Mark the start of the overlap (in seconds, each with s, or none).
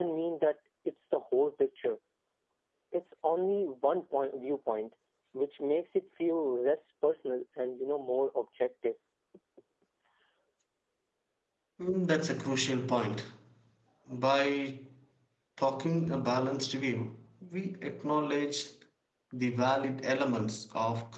none